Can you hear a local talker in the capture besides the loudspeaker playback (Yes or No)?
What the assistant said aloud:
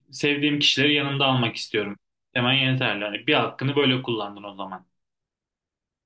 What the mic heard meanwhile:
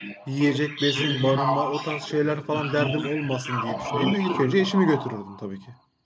Yes